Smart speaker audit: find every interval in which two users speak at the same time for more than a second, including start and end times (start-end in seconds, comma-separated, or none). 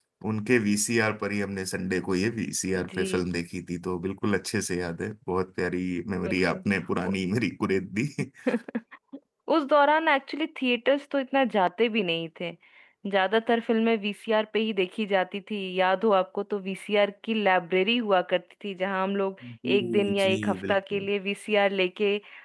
19.8-21.1